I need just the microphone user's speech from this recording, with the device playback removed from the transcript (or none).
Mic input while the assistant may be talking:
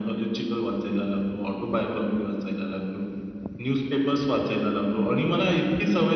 none